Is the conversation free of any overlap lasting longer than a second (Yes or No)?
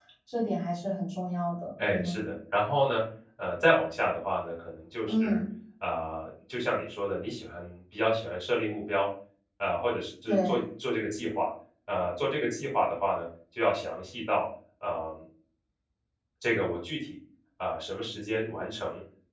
Yes